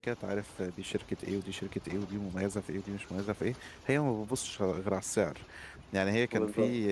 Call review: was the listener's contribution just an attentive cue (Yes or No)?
Yes